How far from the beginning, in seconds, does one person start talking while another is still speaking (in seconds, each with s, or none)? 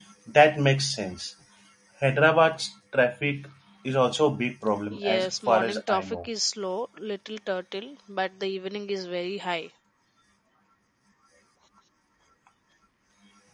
4.9 s